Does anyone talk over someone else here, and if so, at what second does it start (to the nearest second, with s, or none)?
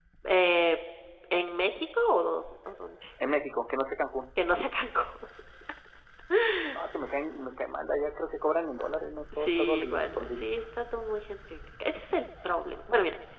9 s